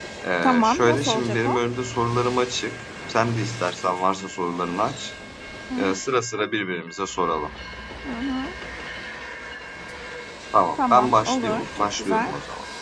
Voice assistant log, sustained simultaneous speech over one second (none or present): present